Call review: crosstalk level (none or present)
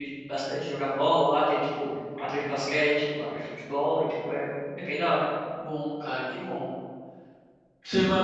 none